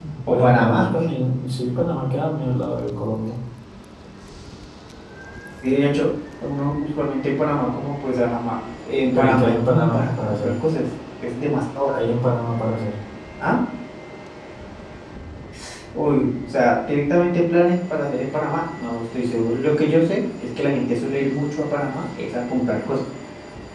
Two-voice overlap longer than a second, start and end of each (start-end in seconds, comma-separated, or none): 9.1-10.5